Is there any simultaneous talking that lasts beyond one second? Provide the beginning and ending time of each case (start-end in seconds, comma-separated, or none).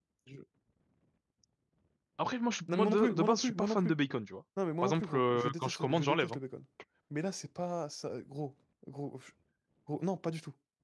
2.7-3.9, 4.8-6.4